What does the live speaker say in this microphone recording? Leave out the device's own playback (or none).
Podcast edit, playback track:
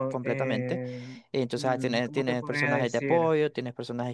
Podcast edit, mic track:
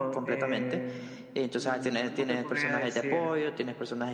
none